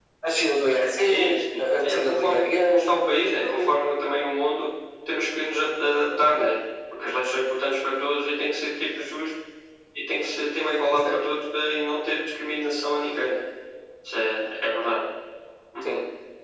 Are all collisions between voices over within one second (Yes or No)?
No